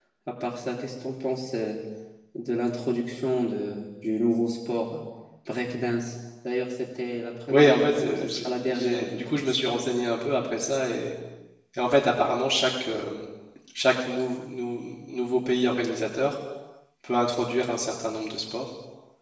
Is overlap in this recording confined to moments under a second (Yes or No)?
No